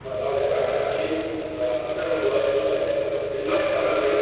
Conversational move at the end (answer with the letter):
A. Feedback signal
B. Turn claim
A